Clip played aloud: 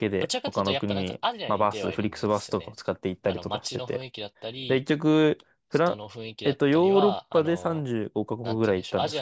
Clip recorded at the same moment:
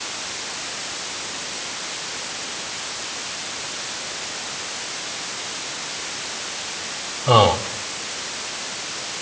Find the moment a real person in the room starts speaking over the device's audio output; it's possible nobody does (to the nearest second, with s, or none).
7 s